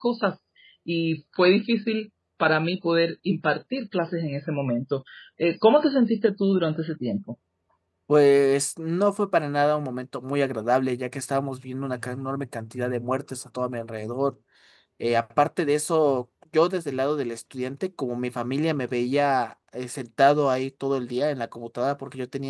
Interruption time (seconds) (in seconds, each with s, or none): none